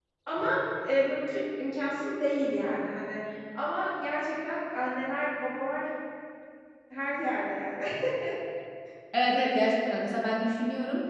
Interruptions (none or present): none